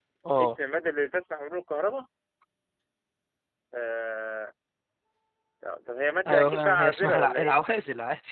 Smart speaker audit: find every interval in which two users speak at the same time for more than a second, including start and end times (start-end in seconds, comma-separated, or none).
6.3-7.5